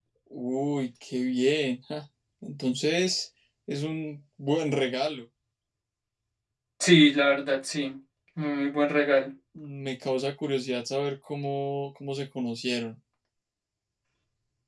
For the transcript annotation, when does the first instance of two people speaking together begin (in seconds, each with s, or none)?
none